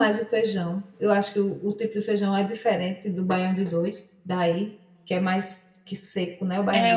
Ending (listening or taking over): taking over